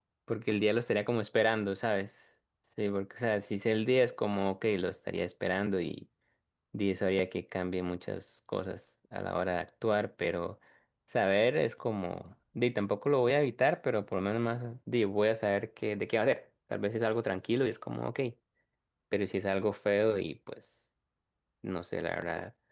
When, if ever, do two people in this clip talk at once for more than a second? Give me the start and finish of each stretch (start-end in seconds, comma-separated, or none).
none